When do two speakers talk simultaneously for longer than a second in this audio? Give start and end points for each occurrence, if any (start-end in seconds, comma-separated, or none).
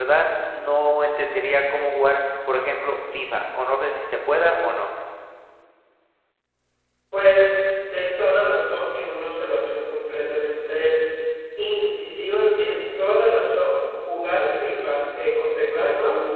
none